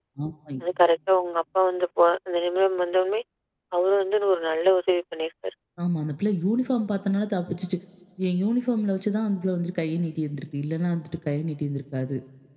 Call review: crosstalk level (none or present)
none